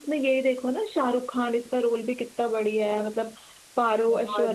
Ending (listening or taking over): listening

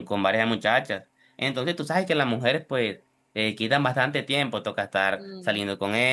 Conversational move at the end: listening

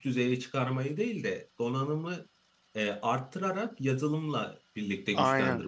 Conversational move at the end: taking over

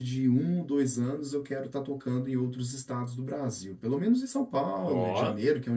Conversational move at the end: listening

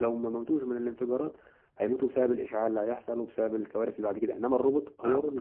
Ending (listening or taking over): listening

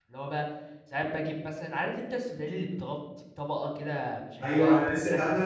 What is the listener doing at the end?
taking over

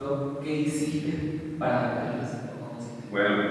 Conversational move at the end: taking over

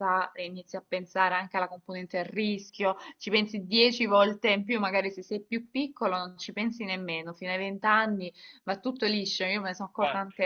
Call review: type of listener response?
listening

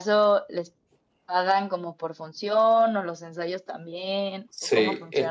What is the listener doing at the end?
taking over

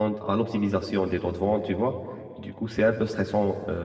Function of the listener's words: listening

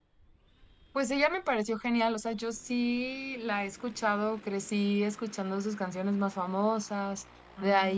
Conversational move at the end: listening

